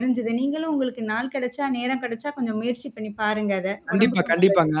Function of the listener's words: taking over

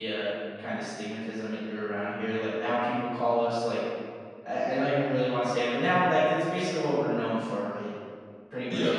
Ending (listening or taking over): listening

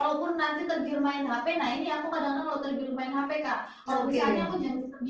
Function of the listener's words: listening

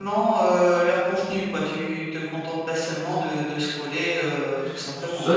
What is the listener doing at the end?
taking over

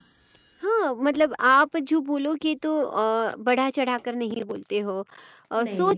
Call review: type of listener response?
listening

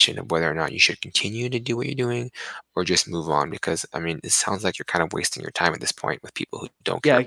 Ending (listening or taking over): taking over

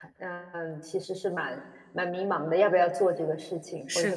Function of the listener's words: listening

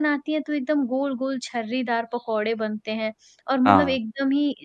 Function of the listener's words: listening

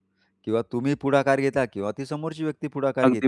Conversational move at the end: taking over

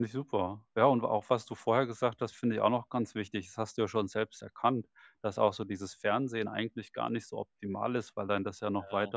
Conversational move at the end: listening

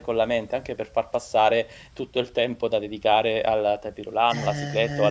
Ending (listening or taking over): taking over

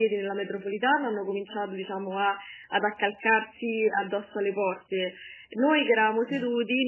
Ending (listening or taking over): listening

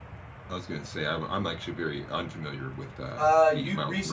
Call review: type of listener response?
taking over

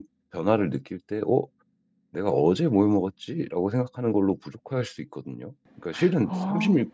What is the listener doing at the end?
listening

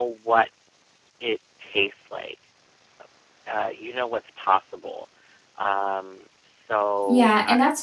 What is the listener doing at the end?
taking over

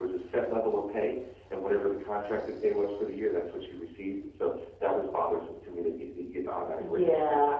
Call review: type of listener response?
taking over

